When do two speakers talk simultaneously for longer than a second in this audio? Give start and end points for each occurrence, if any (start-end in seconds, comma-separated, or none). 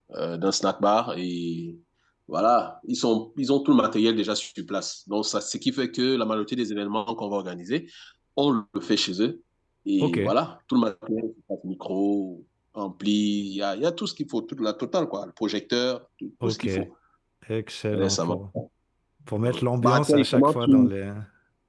19.4-20.9